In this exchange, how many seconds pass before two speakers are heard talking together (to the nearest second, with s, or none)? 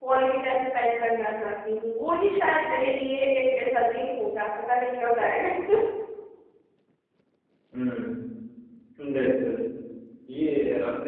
none